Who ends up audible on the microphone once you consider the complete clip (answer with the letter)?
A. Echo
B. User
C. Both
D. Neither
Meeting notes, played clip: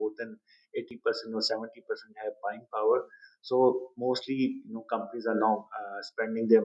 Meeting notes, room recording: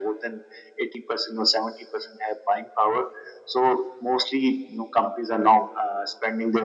A